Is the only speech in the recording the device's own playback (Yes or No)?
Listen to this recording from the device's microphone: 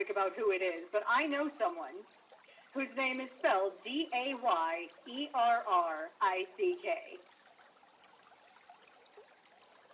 Yes